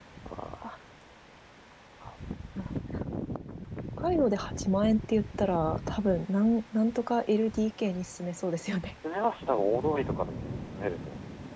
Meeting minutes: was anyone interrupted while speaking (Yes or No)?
No